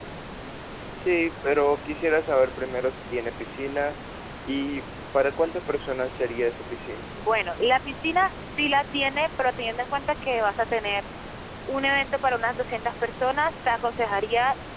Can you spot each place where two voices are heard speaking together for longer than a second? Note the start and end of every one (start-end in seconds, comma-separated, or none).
none